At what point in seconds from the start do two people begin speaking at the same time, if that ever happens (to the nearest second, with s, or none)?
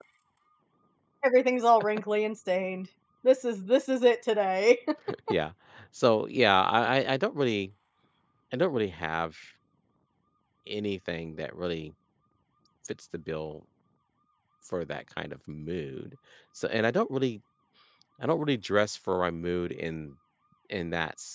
none